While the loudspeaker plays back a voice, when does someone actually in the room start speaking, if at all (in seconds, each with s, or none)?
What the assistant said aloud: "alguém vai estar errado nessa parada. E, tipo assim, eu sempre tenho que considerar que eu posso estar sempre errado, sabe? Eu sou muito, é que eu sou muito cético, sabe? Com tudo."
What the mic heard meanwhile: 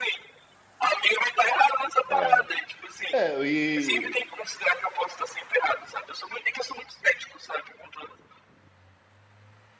2.1 s